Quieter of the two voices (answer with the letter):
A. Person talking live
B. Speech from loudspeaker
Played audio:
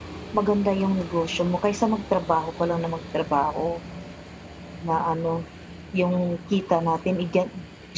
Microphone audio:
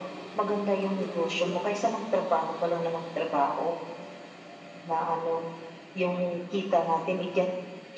A